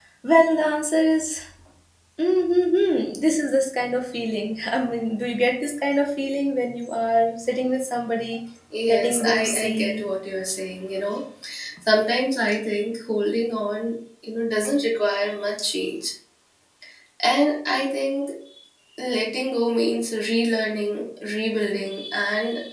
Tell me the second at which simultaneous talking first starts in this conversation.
8.9 s

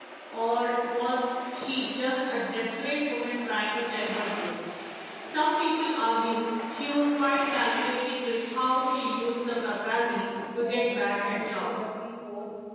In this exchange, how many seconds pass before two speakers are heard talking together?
10.4 s

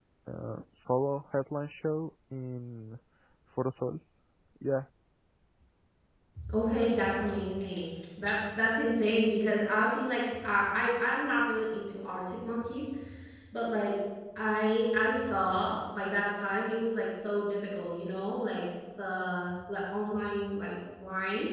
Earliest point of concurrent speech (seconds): none

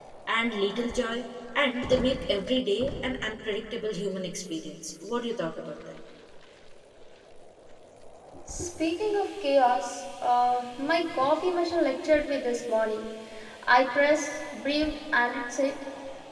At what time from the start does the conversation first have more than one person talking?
none

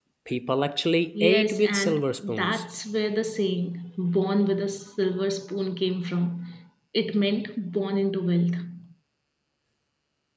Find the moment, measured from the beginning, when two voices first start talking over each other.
1.1 s

